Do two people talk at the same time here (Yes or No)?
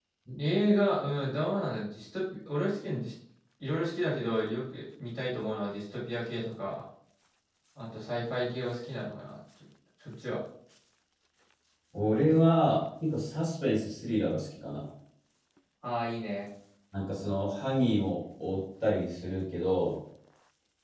No